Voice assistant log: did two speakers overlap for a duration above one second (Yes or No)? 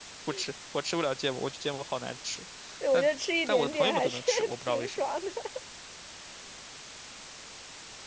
Yes